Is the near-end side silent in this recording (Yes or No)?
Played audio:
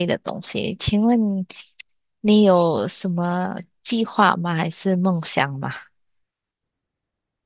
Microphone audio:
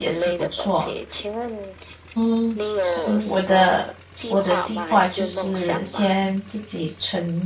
No